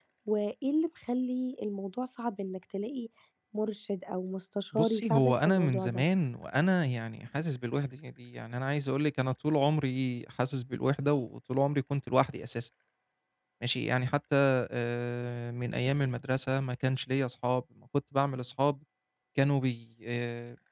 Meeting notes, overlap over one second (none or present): present